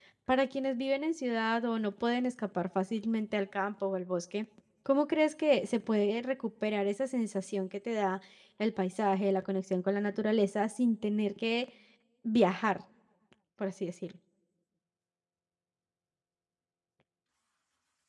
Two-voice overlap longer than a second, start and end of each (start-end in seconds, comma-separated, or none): none